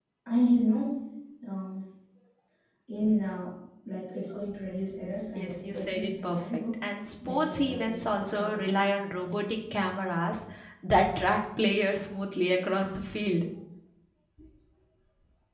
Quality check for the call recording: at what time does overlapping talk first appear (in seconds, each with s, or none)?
5.3 s